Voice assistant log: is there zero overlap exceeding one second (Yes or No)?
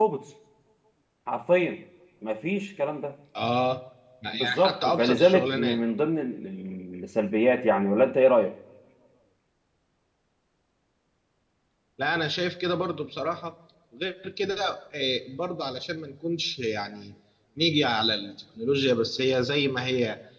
No